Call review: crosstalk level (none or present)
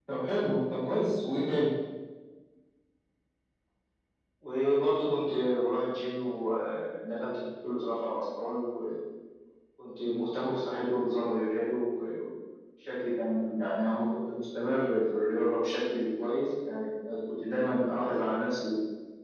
none